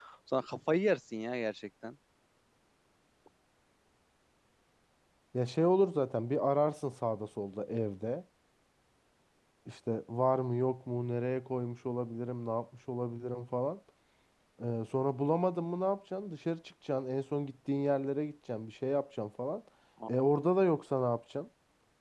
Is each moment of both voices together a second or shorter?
Yes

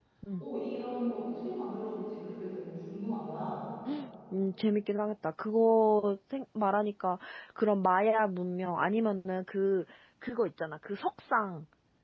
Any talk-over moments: No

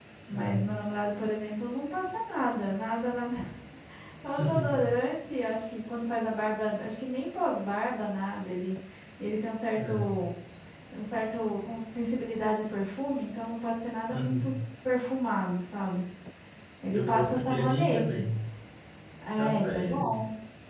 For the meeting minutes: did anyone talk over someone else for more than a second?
Yes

